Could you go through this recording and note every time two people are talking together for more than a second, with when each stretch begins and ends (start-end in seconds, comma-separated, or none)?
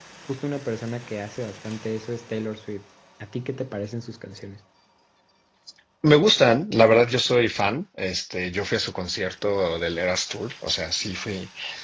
none